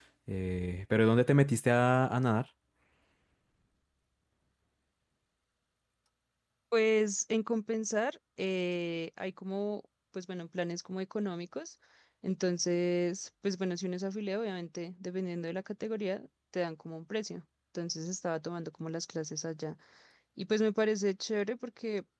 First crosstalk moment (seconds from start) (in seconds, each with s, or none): none